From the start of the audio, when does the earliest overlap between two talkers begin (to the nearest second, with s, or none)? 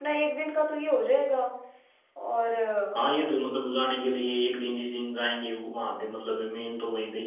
none